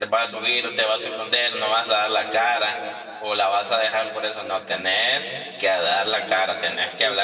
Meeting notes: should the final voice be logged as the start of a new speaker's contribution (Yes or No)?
Yes